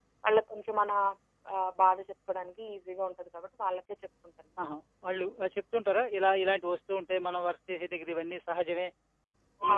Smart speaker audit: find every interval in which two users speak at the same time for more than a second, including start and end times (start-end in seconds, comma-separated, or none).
none